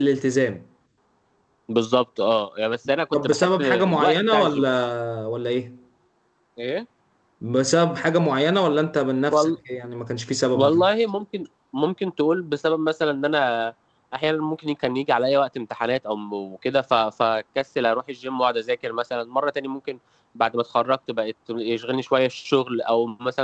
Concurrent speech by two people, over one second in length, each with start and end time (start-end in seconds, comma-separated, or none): 3.2-4.6